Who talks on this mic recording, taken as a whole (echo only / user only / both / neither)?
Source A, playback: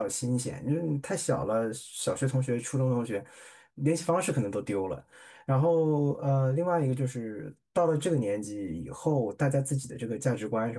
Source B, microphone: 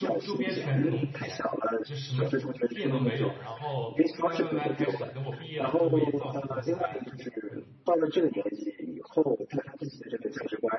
both